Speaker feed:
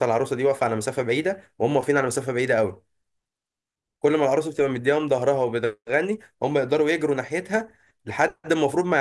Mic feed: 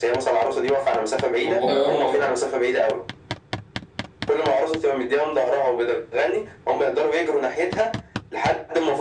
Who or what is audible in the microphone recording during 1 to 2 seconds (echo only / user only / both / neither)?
both